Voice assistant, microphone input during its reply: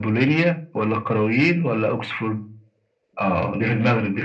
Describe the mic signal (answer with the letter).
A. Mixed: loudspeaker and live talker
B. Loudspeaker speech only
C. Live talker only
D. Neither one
B